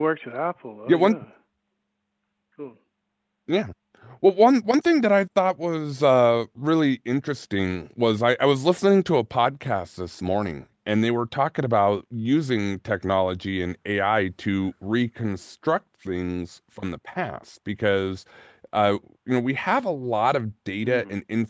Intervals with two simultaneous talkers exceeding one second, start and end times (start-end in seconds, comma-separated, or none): none